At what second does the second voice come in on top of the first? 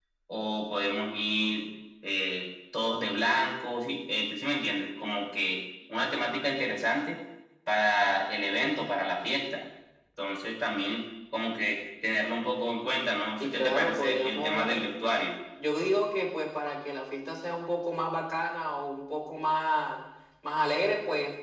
13.4 s

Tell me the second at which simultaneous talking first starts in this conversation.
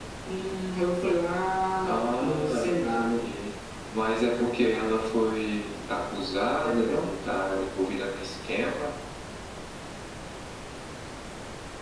1.9 s

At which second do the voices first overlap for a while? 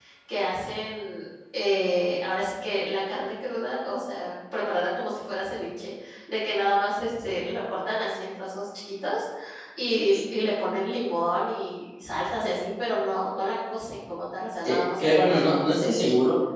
14.6 s

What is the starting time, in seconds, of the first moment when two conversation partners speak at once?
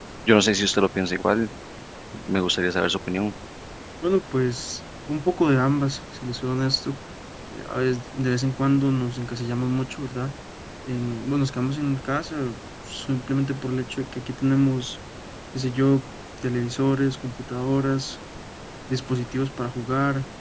none

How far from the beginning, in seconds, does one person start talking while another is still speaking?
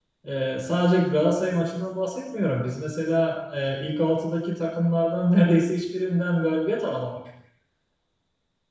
none

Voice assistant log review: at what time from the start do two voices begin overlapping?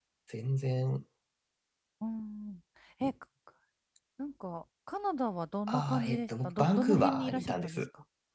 5.7 s

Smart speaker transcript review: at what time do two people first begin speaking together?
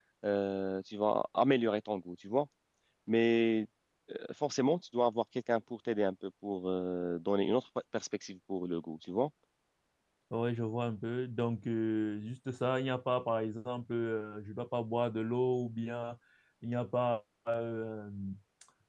none

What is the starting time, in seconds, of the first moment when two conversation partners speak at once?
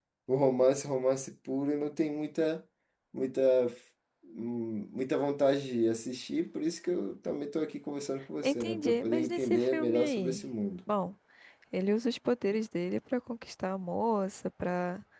8.4 s

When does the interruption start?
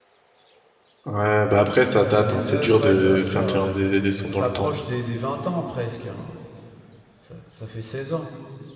2.1 s

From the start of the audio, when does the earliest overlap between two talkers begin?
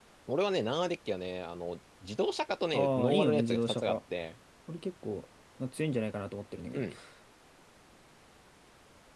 2.7 s

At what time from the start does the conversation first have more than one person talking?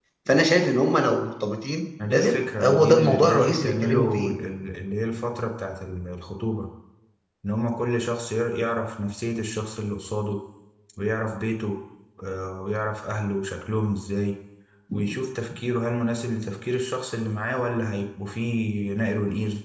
2.0 s

